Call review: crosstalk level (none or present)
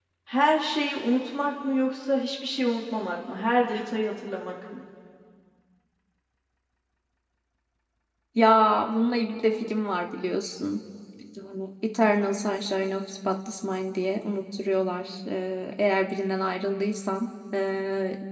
none